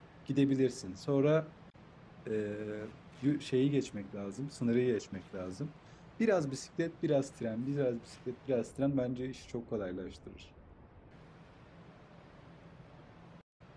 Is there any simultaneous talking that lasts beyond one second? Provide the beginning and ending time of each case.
none

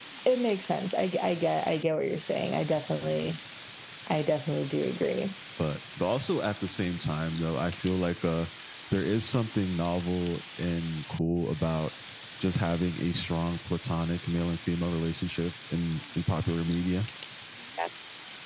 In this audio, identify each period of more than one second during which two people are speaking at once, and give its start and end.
none

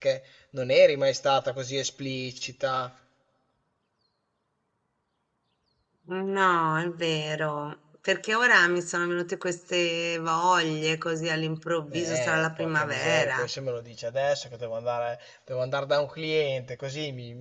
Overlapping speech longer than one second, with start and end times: 12.0-13.4

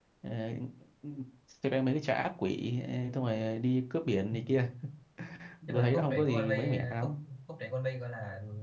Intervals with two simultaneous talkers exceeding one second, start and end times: 5.7-7.1

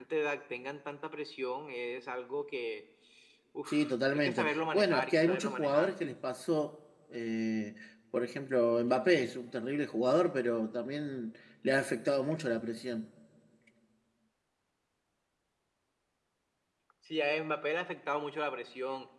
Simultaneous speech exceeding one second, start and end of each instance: 4.1-5.9

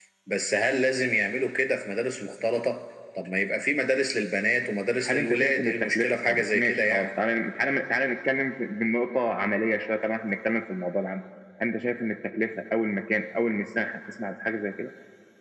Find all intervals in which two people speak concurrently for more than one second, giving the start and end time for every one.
5.1-7.1

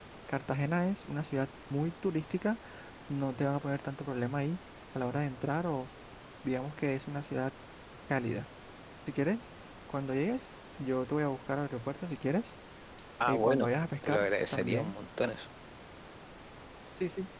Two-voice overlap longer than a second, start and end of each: 13.3-15.0

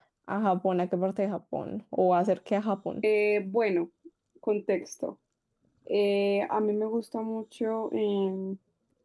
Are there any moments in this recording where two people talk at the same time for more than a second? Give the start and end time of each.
none

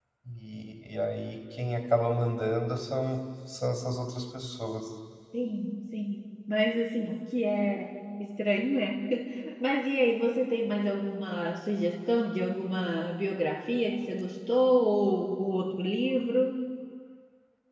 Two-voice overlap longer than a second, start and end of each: none

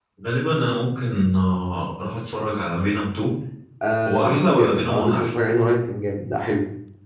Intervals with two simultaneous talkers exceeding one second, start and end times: 4.1-5.3

